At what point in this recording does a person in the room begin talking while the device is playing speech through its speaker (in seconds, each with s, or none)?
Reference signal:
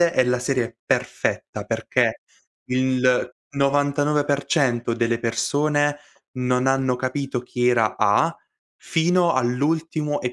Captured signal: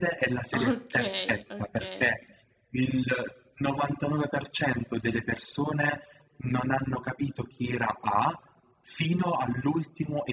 0.6 s